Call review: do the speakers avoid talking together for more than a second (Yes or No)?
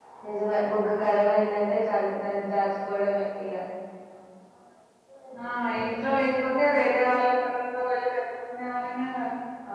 Yes